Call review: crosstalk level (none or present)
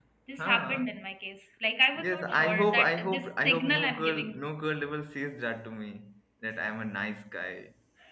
present